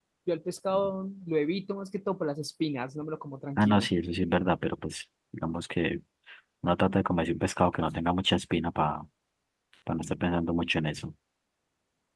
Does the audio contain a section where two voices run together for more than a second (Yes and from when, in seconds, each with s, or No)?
No